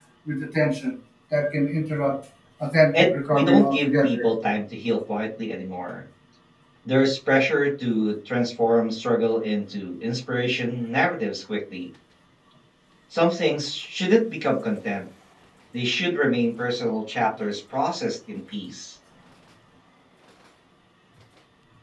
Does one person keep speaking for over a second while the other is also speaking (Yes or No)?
Yes